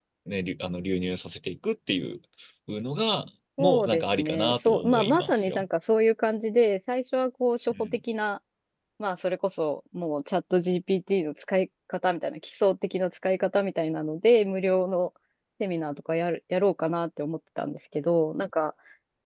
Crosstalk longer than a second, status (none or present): present